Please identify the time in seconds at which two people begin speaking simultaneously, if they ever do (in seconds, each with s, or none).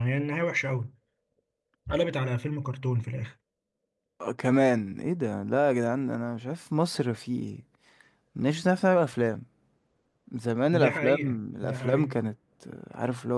10.7 s